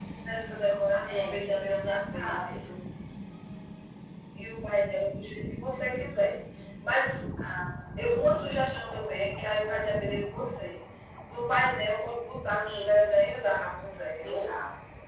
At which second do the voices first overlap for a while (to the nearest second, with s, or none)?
1 s